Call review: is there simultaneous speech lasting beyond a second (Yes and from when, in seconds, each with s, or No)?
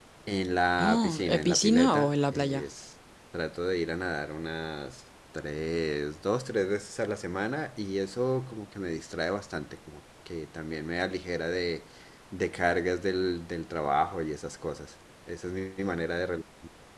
Yes, from 0.8 s